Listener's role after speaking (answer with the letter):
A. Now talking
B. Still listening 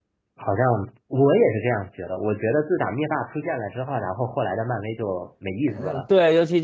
A